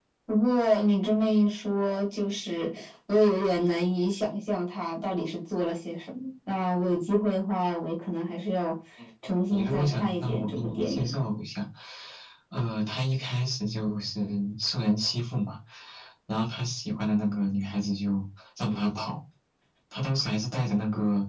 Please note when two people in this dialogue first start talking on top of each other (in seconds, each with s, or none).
9.5 s